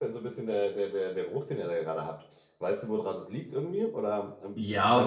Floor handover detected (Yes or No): Yes